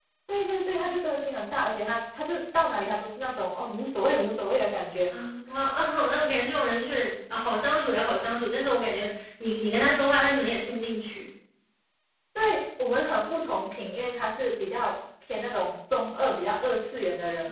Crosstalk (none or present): none